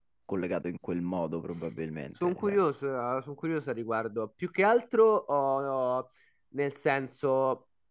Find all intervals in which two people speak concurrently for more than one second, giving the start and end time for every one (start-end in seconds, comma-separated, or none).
none